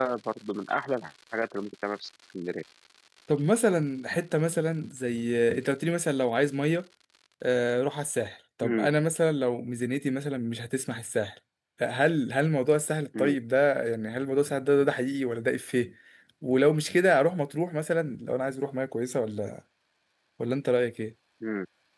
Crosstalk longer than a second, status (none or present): none